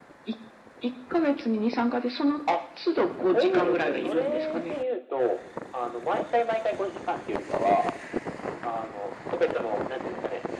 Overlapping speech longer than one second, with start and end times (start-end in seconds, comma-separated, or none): 3.1-4.7